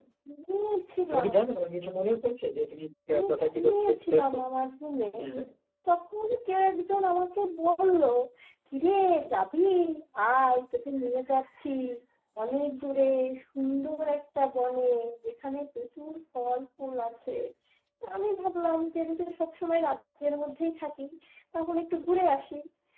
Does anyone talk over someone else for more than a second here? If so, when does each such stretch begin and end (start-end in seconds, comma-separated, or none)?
3.1-4.4